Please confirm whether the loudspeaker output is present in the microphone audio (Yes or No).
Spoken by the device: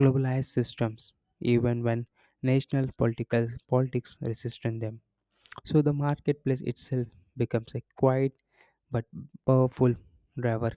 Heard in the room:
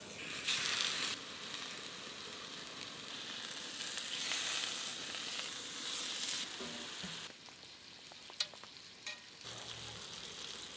No